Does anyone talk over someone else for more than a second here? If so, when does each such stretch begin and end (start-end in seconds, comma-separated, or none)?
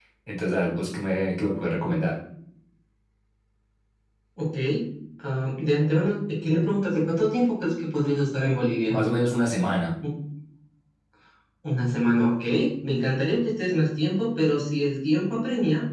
none